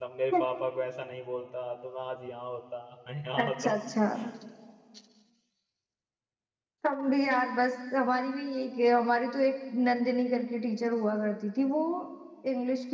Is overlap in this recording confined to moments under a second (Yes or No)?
Yes